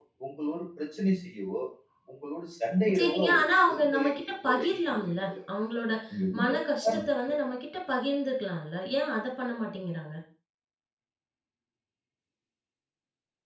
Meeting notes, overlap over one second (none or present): present